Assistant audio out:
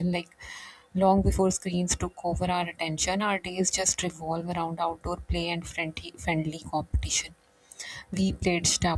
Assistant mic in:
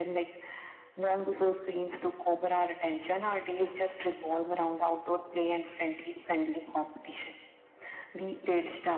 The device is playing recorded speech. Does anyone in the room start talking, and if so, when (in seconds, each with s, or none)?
none